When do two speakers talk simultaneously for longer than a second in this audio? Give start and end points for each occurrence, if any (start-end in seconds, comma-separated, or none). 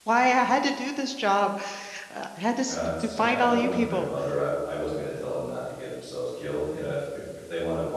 2.7-4.1